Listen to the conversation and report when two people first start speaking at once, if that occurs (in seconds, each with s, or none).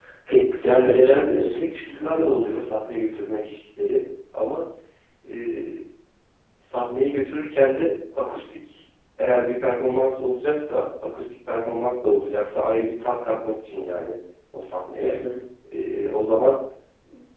0.6 s